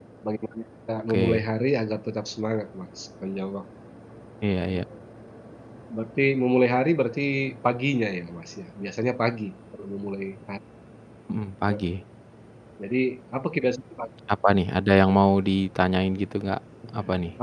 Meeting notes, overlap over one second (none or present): none